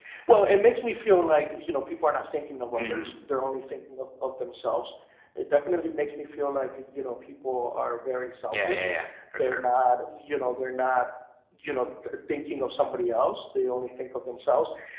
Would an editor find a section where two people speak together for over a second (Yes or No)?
No